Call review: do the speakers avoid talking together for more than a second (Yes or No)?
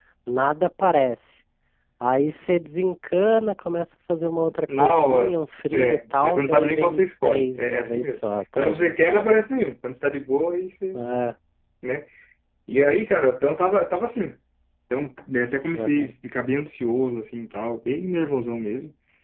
No